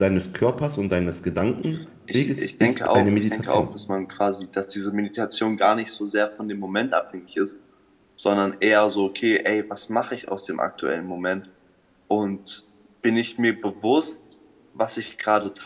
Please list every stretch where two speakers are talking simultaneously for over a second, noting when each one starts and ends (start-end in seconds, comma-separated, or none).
2.1-3.7